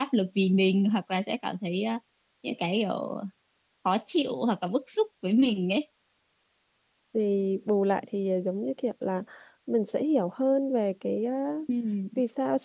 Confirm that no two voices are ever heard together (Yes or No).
Yes